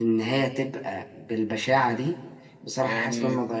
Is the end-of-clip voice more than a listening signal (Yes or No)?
No